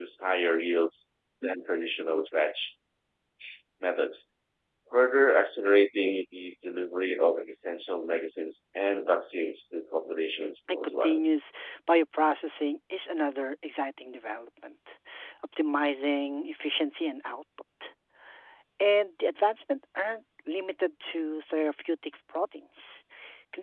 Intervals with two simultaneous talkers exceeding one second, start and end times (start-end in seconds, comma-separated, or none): none